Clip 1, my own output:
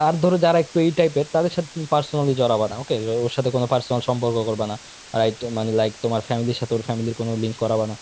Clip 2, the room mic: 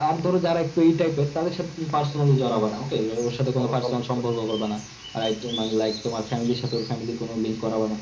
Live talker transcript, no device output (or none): বলো তো অল্প করে